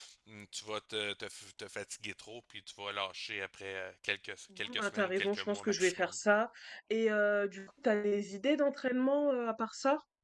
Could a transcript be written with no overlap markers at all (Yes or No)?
No